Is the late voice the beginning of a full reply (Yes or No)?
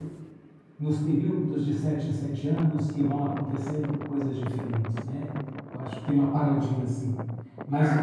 No